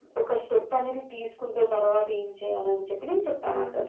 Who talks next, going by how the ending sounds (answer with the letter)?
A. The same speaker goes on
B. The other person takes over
B